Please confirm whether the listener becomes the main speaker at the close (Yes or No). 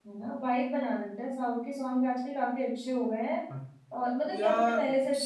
No